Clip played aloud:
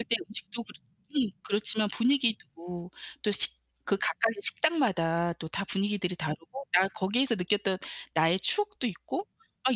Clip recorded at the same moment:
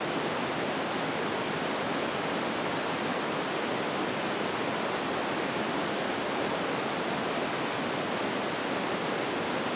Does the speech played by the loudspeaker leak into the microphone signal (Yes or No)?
No